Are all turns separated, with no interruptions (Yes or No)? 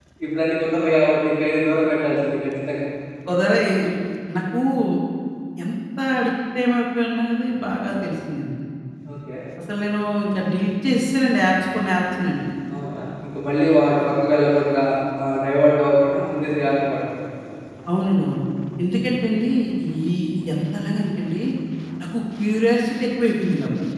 Yes